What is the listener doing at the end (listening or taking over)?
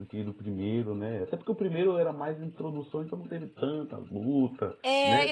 taking over